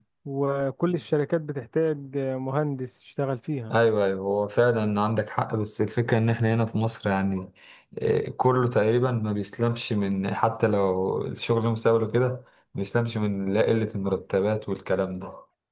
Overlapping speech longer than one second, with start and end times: none

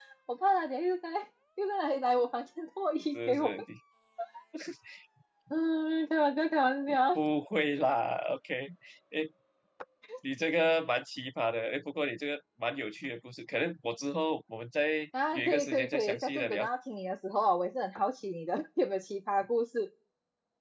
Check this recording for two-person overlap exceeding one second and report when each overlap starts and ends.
15.3-16.6

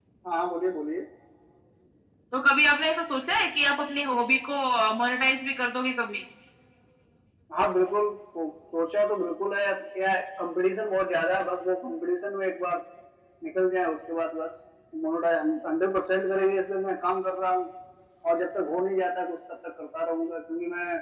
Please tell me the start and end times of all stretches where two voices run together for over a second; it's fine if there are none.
none

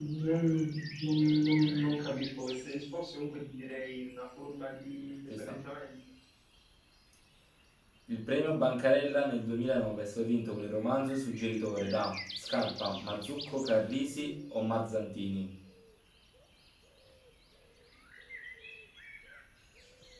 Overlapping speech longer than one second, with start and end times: none

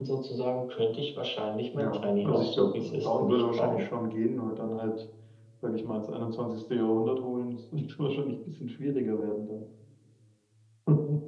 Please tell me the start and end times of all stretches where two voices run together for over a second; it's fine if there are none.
1.7-3.8

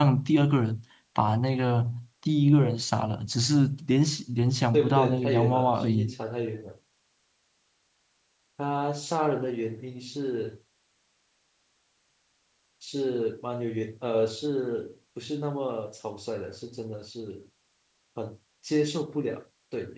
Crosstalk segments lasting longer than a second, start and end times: 4.7-6.1

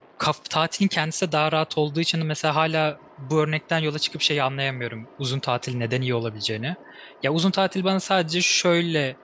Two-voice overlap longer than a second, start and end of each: none

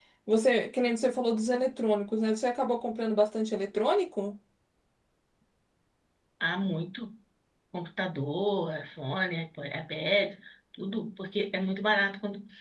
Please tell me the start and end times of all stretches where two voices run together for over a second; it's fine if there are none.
none

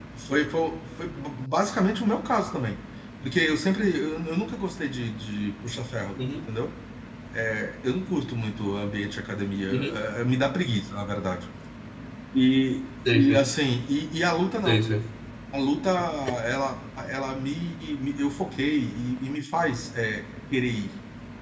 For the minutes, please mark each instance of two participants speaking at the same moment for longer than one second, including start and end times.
none

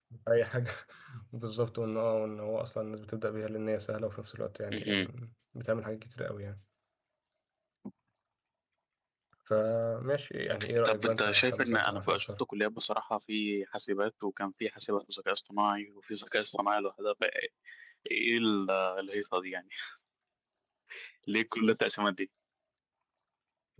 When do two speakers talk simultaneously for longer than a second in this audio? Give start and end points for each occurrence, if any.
10.8-12.4

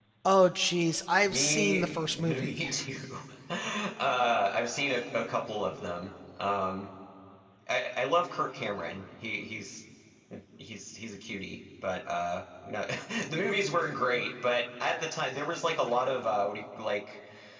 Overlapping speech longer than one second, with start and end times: 1.3-2.6

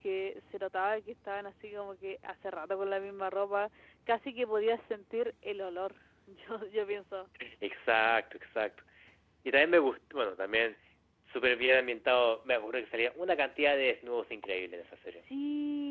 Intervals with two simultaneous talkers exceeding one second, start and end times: none

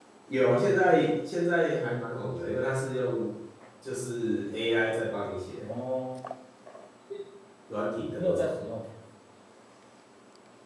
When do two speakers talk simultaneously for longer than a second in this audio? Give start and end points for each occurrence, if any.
none

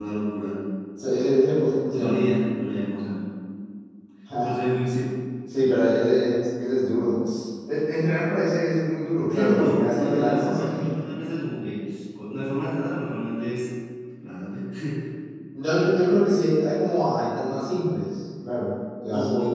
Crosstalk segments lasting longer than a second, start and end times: 9.3-10.9

